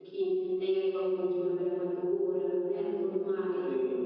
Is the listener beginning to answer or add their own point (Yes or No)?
No